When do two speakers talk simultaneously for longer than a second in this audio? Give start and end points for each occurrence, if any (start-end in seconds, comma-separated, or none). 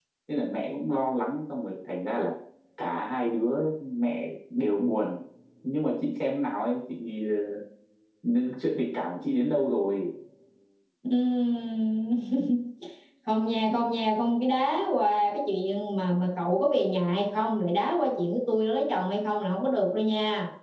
none